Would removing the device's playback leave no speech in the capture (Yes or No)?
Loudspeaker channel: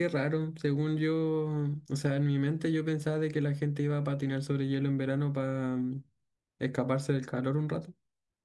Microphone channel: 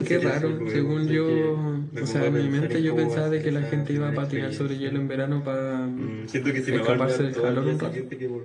No